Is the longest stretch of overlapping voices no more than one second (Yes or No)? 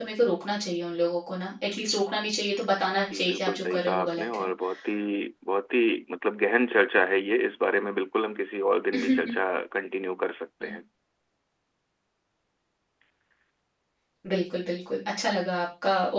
No